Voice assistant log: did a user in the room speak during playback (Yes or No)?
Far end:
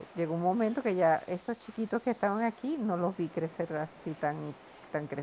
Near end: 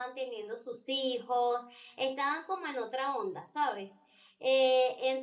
Yes